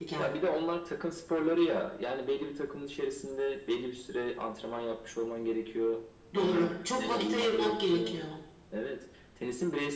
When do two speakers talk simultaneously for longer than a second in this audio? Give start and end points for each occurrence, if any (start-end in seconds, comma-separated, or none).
6.4-8.2